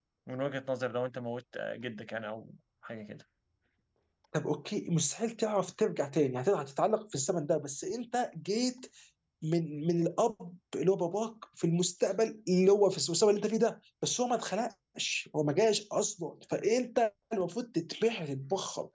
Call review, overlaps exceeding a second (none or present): none